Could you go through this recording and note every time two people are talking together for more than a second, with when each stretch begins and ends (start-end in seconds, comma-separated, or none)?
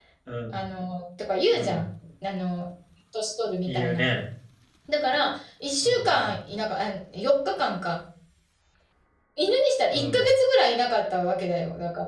none